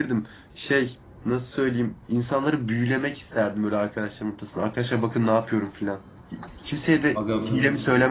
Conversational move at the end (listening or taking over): listening